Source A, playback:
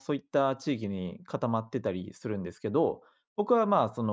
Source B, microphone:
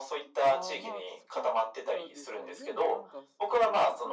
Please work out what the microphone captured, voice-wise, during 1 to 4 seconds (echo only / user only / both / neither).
both